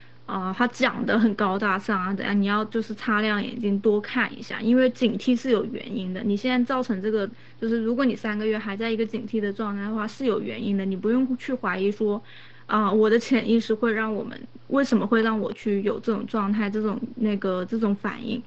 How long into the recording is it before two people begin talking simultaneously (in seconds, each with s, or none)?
none